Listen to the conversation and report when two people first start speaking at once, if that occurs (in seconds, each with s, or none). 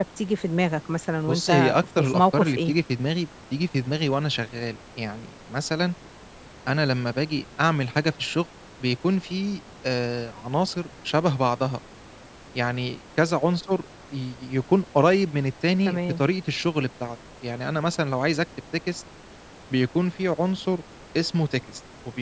1.3 s